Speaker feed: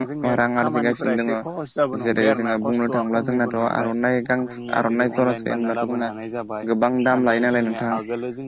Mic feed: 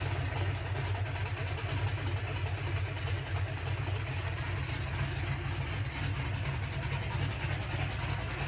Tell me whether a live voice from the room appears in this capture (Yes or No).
No